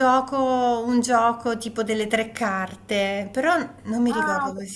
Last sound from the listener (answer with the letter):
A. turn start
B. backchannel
A